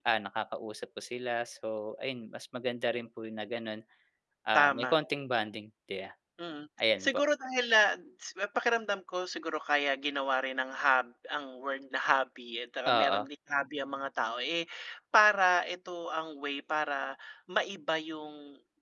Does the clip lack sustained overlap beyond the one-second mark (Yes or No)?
Yes